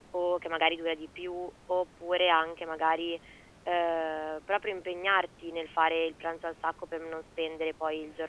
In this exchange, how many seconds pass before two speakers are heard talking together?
none

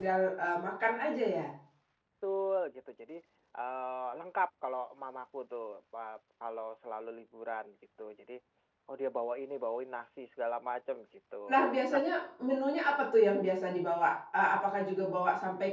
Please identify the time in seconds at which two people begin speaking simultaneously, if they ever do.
none

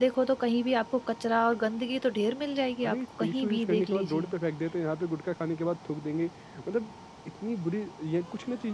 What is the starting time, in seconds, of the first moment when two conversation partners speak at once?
2.8 s

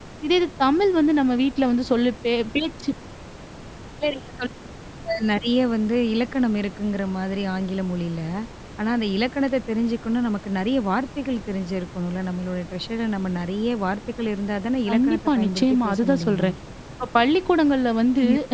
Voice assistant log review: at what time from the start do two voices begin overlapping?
14.9 s

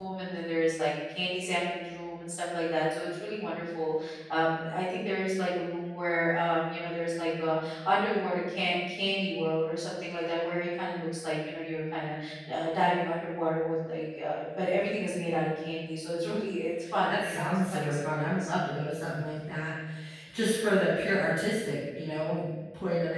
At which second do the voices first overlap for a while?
16.8 s

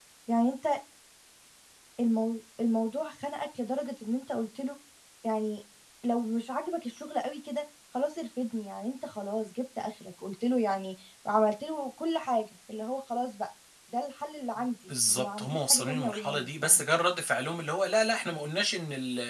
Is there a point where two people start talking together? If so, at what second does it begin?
14.9 s

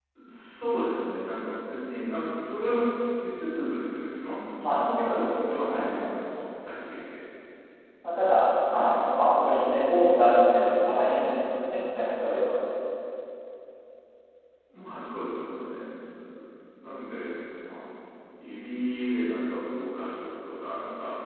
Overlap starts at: 4.6 s

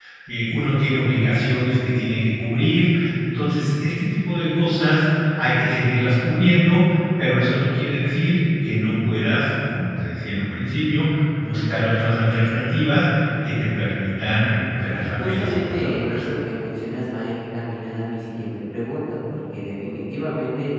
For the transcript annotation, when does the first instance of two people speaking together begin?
14.8 s

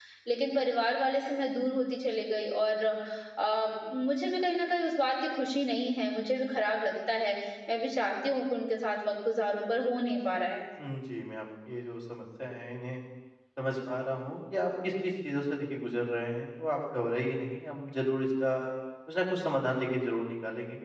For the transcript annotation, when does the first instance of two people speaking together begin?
none

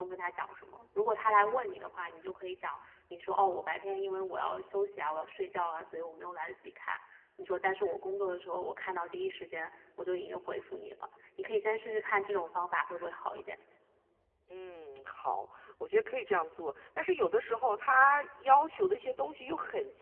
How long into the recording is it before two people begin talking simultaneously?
none

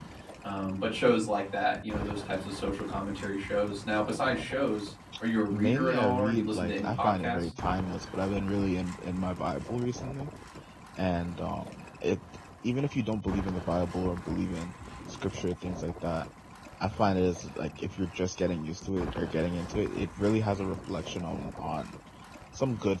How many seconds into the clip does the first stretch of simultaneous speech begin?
5.5 s

